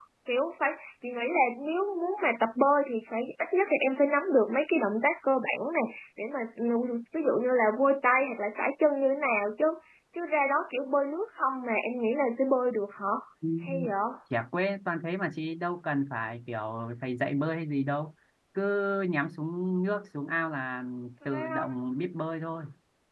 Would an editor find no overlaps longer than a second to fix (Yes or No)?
Yes